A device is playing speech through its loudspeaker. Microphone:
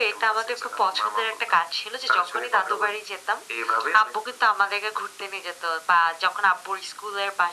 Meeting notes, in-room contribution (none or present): none